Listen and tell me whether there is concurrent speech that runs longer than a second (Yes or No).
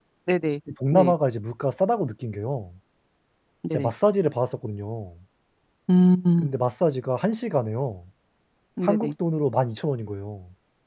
No